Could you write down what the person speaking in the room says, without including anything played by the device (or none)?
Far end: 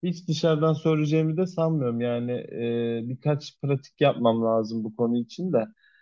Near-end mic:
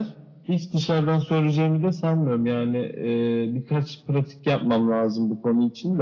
none